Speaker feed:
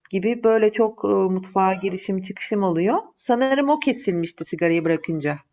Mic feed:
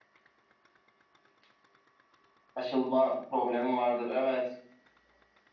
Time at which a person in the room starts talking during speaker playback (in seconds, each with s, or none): 2.5 s